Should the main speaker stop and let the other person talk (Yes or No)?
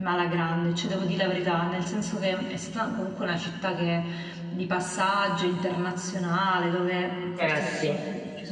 No